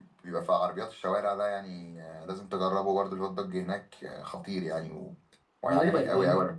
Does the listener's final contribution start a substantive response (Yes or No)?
Yes